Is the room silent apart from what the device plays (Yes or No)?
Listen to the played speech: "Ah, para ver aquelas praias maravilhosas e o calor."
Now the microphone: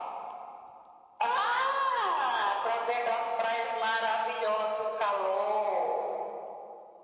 Yes